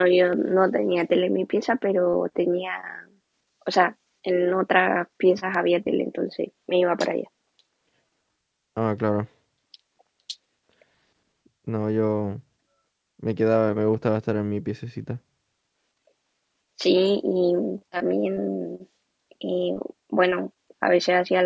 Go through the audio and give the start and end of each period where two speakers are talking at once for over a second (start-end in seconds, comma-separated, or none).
none